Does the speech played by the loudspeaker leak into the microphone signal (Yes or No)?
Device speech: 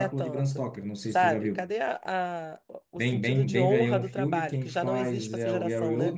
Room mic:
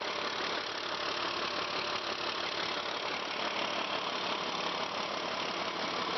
No